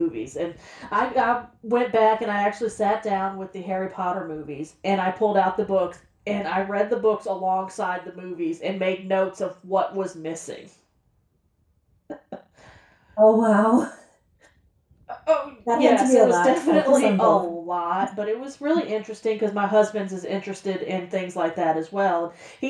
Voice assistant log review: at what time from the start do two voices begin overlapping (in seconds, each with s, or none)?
15.7 s